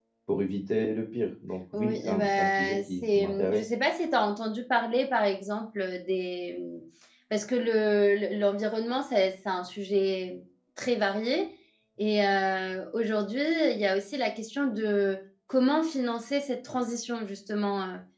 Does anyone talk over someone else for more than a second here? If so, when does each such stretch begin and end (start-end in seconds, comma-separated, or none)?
1.7-3.6